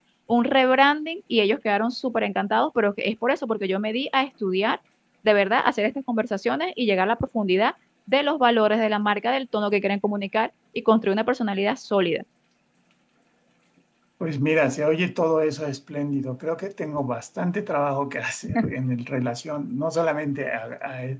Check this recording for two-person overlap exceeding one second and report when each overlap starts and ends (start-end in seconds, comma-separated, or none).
none